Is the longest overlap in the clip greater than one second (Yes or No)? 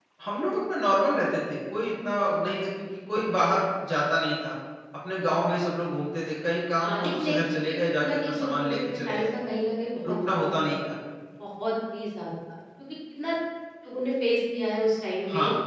Yes